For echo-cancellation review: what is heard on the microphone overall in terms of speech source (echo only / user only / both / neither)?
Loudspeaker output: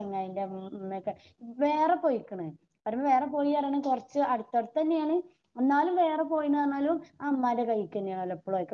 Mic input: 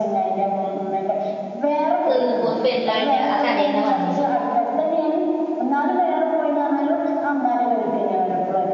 both